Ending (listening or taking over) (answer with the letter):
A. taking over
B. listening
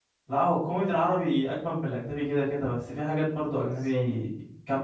B